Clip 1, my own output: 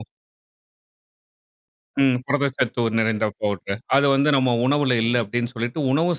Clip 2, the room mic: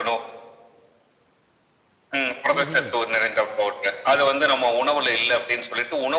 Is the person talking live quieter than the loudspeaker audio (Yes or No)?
Yes